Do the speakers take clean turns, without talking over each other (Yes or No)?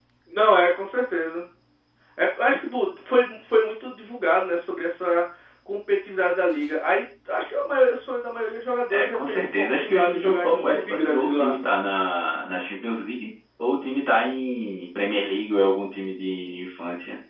No